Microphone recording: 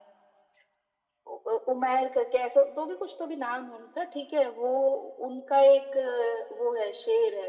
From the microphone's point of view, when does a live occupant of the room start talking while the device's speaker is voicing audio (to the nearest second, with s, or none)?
none